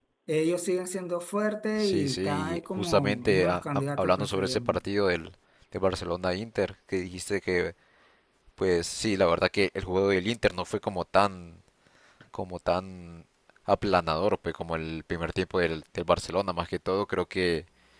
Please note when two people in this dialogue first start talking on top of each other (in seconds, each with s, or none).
1.8 s